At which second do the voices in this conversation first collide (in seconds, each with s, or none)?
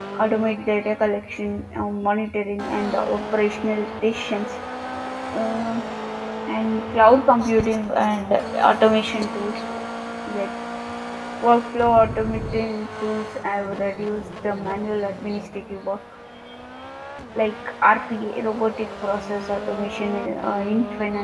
none